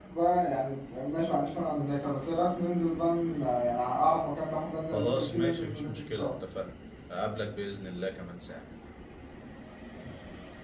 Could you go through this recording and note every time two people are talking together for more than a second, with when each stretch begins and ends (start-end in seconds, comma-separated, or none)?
4.9-6.3